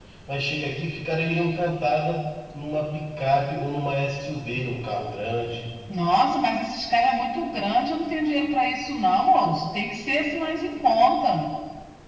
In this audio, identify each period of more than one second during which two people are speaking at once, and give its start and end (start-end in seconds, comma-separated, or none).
none